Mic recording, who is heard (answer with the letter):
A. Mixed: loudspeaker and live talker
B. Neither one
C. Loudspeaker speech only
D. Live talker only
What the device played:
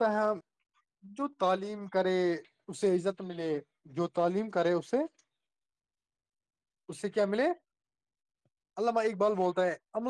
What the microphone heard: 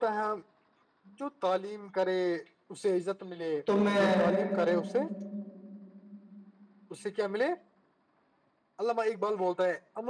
A